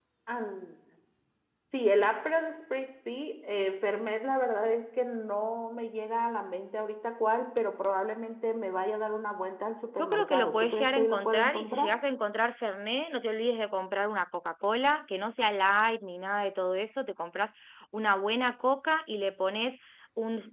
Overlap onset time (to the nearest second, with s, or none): 10 s